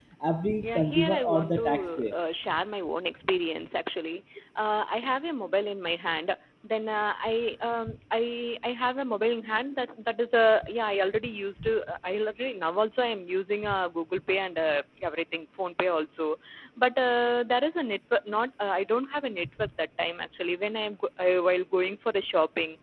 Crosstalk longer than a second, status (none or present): present